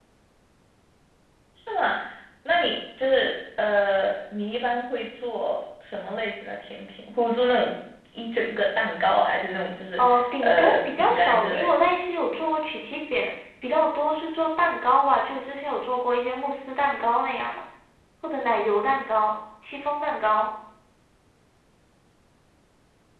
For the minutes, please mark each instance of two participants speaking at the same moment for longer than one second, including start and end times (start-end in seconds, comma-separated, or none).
10.0-11.7